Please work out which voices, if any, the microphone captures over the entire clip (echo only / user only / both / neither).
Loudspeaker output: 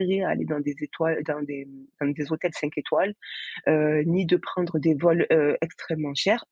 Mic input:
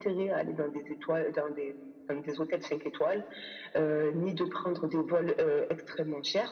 echo only